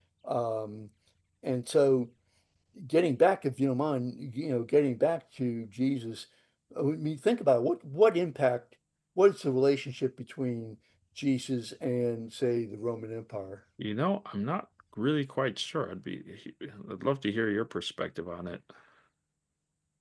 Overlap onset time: none

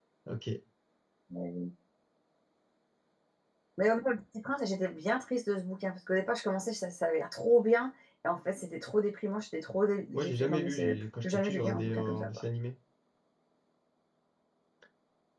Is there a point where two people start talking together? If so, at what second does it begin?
10.1 s

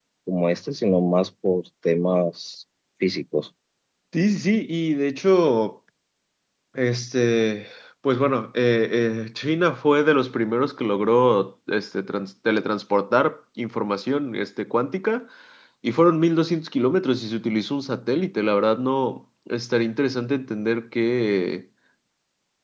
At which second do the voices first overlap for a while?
none

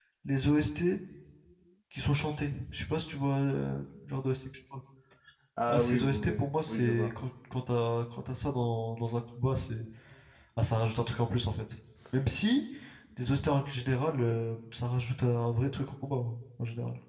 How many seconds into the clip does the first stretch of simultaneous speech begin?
5.7 s

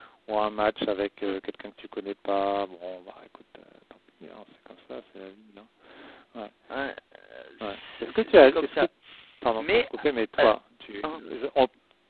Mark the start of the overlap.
7.6 s

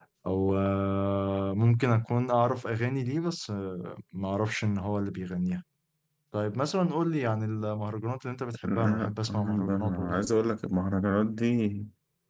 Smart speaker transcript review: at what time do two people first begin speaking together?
8.6 s

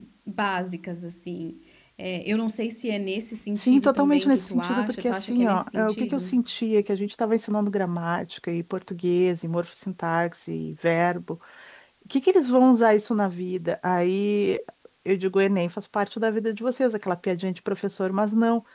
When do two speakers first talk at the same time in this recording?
3.6 s

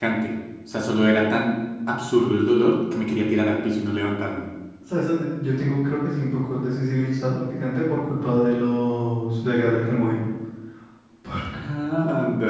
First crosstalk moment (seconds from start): none

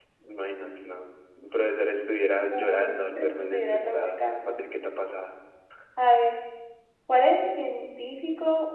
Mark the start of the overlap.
2.5 s

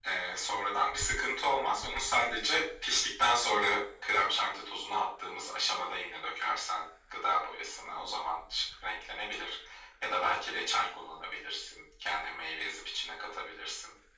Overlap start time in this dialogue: none

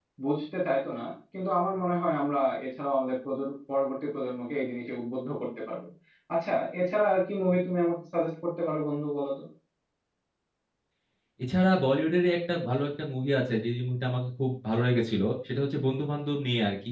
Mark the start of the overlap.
none

